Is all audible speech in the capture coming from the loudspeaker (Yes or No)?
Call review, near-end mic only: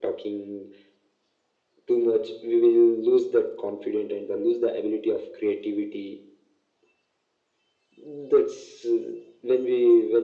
Yes